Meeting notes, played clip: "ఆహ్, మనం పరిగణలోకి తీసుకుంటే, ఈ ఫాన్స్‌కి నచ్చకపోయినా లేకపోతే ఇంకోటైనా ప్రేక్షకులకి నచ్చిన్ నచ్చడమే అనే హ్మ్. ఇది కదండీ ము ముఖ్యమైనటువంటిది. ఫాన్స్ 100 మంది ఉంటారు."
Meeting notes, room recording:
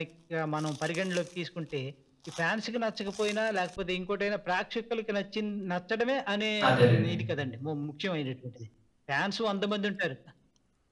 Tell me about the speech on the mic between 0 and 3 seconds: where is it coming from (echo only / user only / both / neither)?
echo only